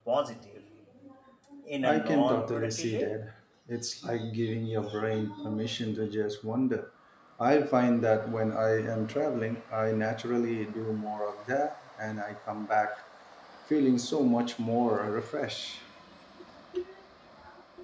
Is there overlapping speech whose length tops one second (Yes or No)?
Yes